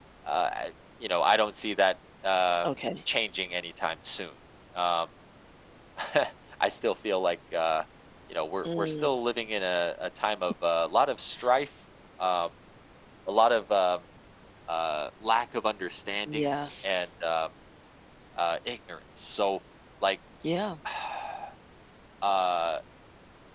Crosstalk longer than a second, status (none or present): none